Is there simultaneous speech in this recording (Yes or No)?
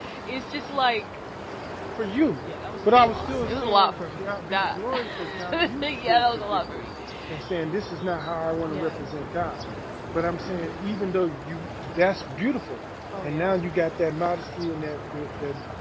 Yes